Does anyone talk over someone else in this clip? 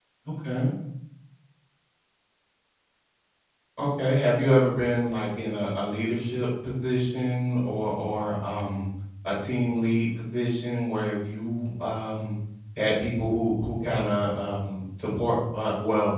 No

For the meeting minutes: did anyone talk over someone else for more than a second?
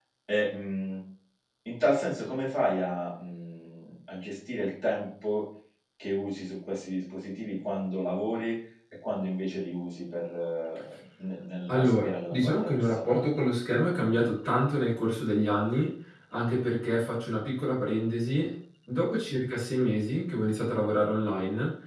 Yes, from 11.7 s

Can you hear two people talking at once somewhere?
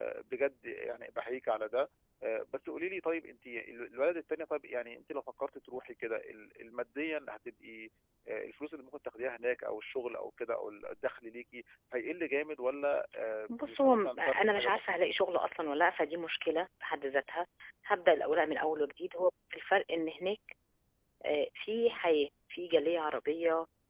Yes, from 13.5 s

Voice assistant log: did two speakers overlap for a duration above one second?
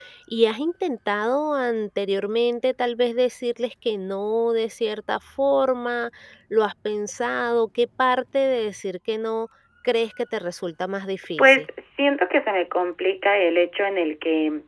No

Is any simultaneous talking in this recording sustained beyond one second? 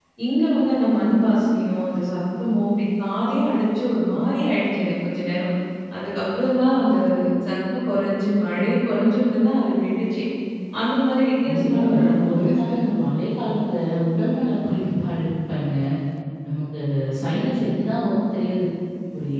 Yes, from 11.4 s

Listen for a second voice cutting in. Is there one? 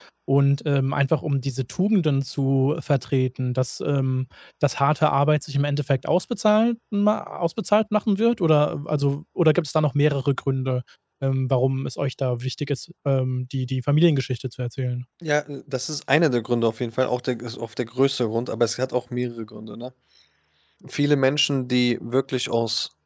No

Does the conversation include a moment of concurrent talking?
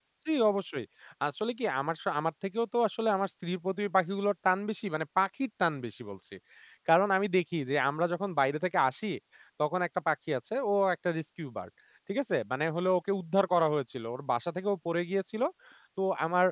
No

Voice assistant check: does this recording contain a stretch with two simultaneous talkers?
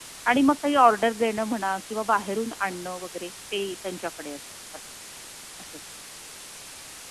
No

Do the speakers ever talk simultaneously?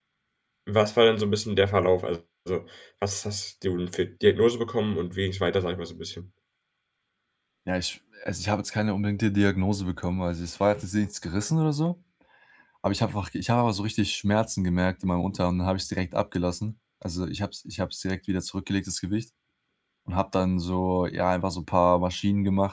No

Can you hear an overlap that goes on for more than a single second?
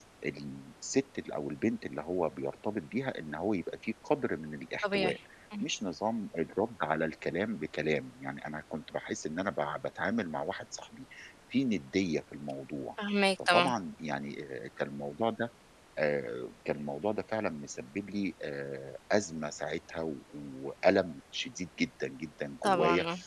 No

